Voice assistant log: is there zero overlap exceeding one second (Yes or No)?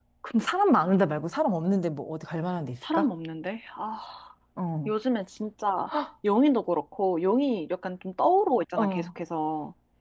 Yes